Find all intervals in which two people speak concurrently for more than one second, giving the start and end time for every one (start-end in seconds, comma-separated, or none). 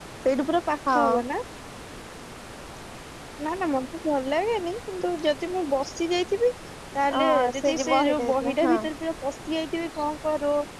7.2-8.7